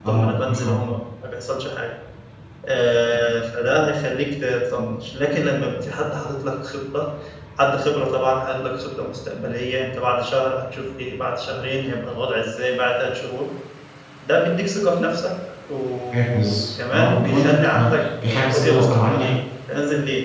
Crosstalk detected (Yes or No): Yes